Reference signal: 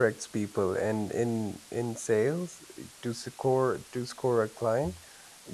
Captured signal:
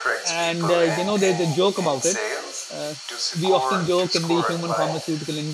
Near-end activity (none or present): present